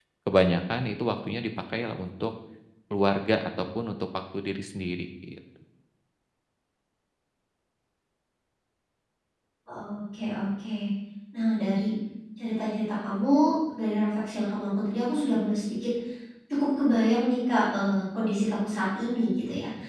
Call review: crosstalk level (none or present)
none